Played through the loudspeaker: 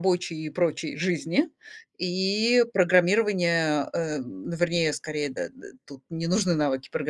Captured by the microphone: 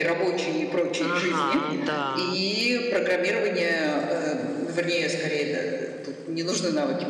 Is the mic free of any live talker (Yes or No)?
No